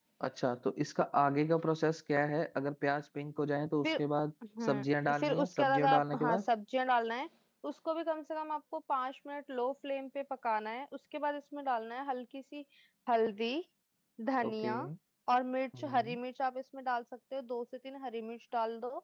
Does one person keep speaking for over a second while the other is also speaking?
Yes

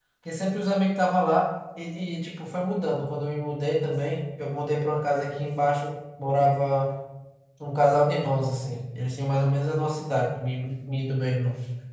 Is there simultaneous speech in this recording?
No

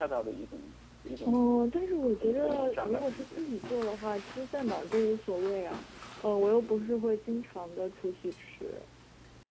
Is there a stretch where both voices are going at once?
Yes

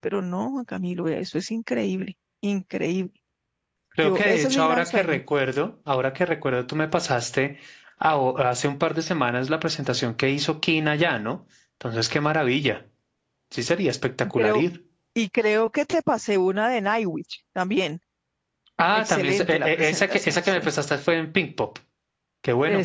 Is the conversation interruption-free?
No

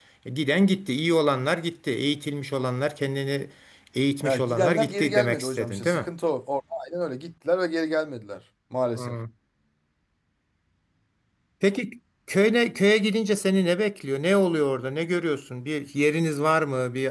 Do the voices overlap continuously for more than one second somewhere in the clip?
Yes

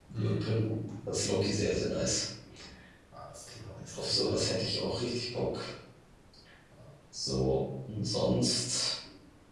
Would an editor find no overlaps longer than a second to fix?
Yes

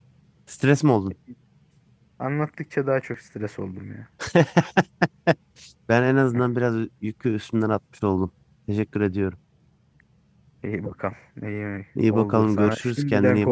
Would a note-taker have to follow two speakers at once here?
Yes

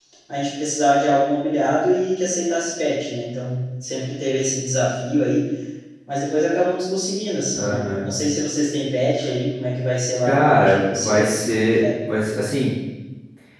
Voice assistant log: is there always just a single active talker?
No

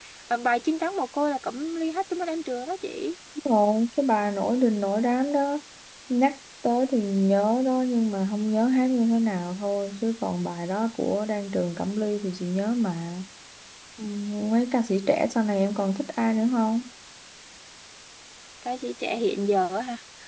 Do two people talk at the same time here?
No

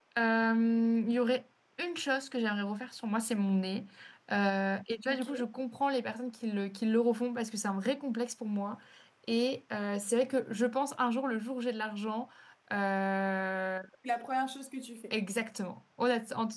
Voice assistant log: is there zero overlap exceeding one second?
Yes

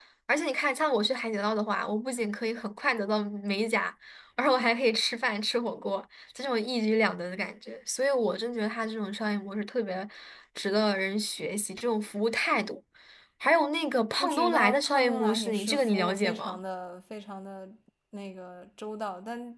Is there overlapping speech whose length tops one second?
Yes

